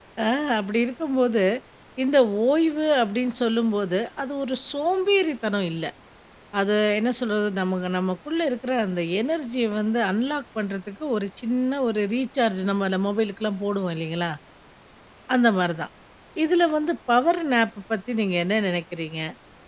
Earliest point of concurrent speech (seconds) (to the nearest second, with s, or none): none